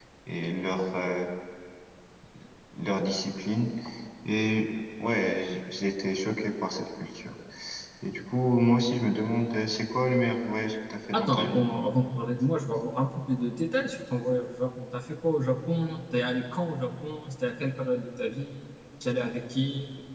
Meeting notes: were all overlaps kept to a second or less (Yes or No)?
Yes